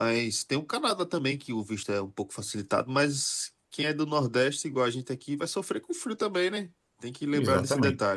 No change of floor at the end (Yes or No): No